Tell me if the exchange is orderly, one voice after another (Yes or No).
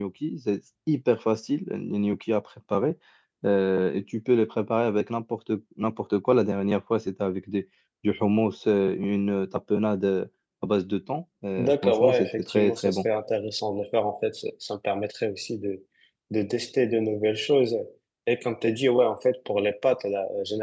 No